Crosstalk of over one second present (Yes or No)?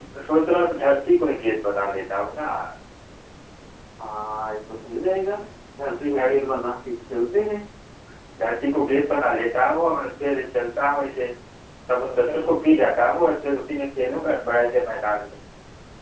No